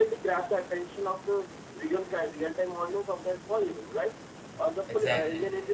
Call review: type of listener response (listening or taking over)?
listening